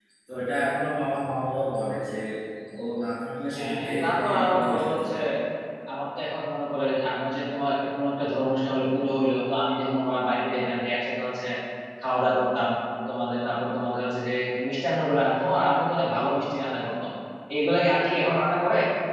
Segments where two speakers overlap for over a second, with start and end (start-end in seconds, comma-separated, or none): 3.5-5.0